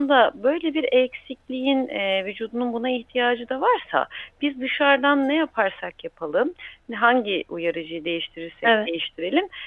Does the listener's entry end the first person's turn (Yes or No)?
No